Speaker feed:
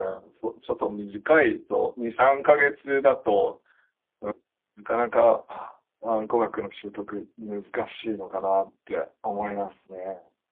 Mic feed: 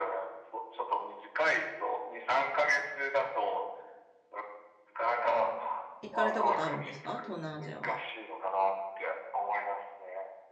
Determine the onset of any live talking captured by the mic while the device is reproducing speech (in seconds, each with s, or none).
6.0 s